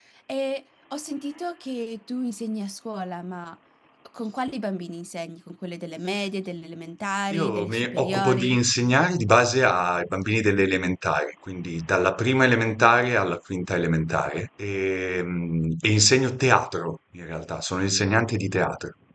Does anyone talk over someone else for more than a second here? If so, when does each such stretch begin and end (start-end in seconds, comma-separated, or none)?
7.3-8.6